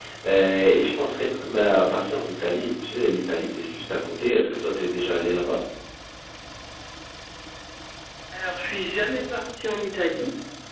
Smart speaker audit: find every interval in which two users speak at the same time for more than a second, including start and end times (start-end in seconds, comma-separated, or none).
none